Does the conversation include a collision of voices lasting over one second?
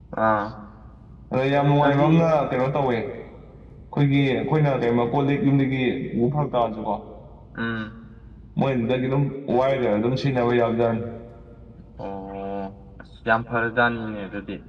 No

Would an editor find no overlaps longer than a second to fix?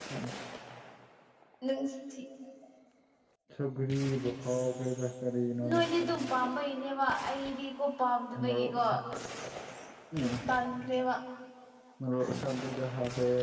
Yes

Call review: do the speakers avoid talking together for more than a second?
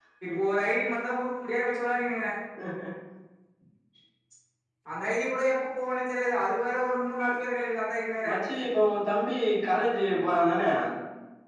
Yes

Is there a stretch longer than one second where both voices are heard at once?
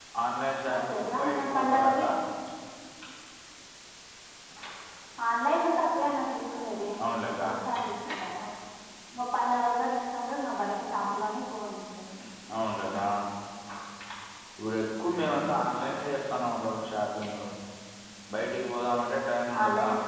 Yes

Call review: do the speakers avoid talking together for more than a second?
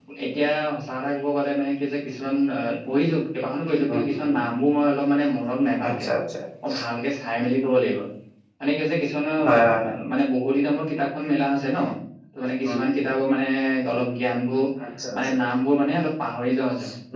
Yes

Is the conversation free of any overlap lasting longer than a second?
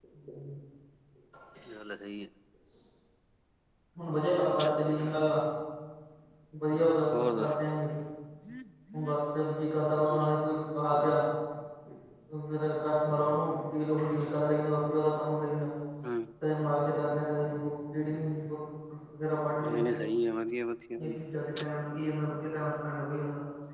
Yes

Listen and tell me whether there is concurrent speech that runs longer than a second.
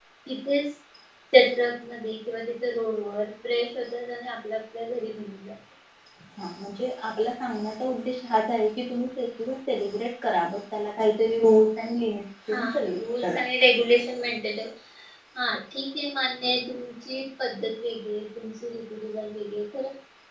No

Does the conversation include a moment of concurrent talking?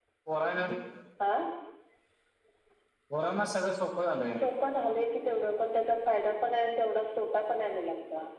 No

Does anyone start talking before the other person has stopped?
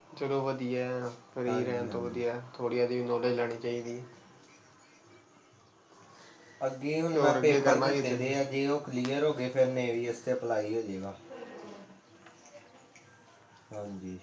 Yes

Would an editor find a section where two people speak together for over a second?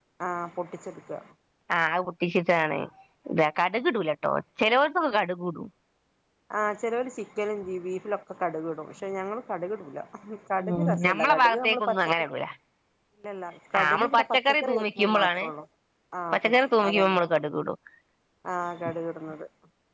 Yes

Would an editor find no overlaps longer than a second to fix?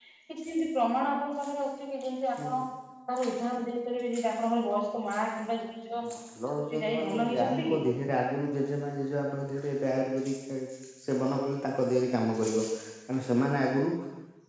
No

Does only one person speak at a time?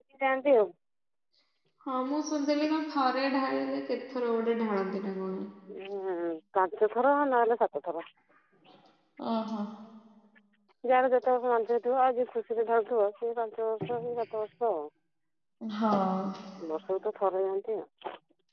Yes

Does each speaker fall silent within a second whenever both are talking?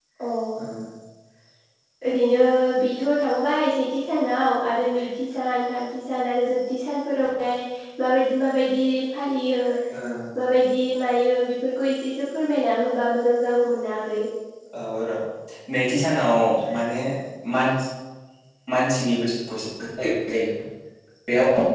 Yes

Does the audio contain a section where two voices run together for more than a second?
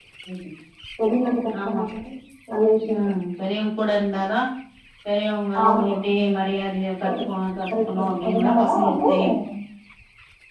Yes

